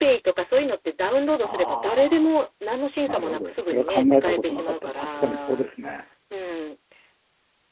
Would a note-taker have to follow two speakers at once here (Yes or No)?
Yes